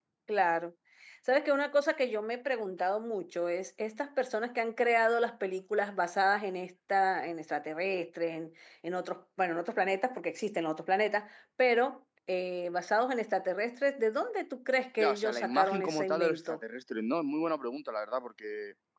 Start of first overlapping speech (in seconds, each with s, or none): 15.0 s